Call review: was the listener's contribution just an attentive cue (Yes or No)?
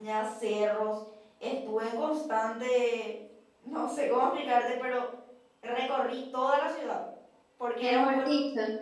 No